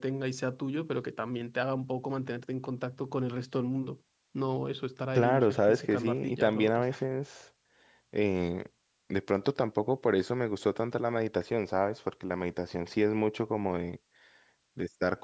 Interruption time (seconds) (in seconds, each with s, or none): 5.2 s